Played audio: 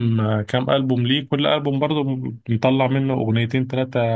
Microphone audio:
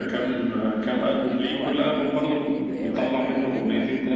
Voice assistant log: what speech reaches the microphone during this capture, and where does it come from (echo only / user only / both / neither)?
both